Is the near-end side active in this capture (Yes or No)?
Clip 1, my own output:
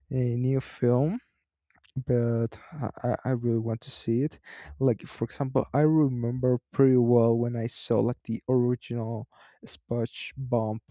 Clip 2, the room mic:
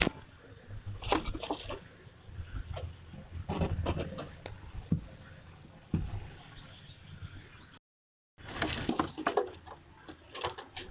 No